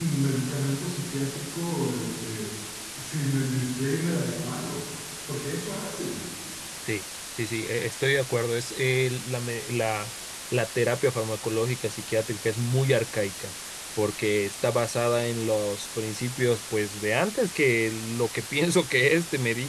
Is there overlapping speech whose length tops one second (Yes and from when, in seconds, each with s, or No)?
No